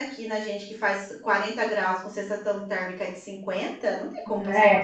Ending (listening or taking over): taking over